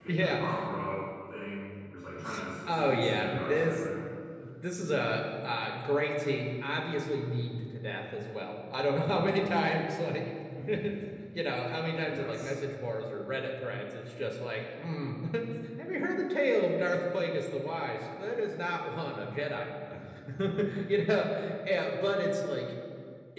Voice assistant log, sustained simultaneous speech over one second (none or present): present